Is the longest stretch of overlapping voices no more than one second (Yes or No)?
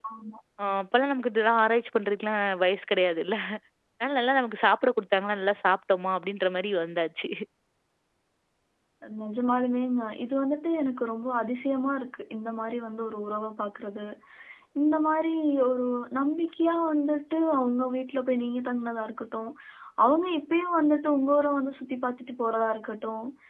Yes